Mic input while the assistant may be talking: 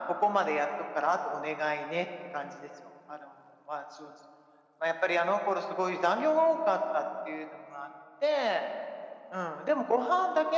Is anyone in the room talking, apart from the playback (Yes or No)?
No